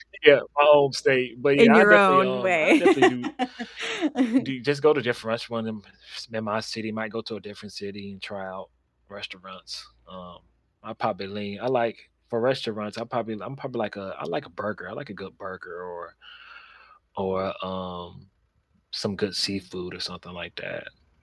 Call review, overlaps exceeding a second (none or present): present